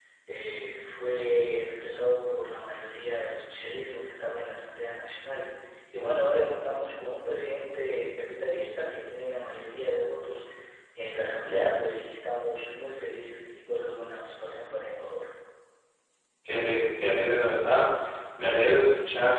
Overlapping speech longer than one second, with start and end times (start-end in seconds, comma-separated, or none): none